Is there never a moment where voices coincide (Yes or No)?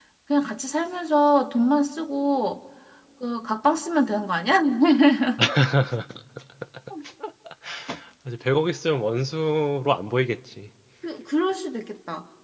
Yes